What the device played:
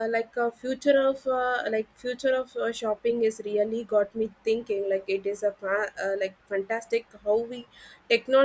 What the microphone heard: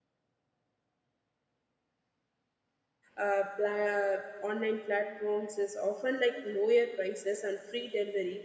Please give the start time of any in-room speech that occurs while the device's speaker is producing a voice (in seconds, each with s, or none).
3.2 s